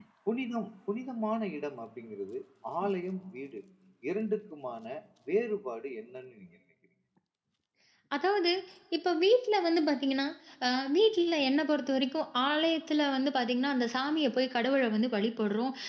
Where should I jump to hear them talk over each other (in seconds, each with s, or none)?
none